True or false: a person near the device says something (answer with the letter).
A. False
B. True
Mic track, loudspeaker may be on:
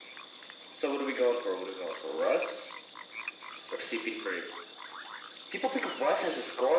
A